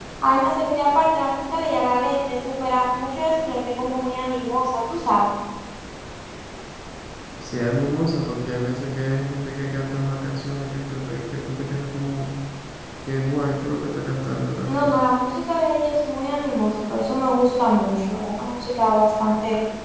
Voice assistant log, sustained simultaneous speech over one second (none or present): none